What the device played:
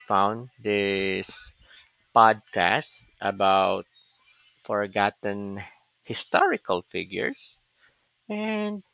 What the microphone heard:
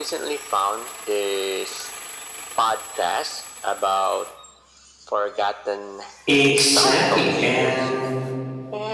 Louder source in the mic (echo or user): user